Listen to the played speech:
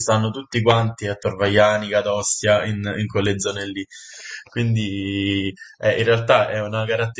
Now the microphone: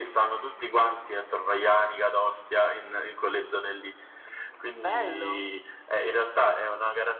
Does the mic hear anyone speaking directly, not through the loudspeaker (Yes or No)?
Yes